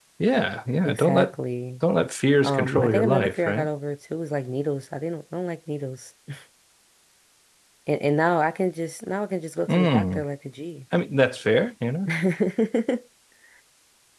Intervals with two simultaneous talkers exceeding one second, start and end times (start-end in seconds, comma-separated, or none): 2.4-3.7